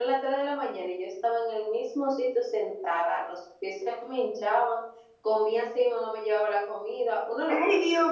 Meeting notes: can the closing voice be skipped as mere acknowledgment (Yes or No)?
No